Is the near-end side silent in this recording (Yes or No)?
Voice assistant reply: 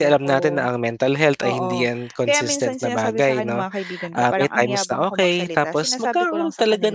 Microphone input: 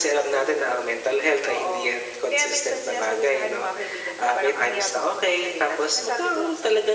Yes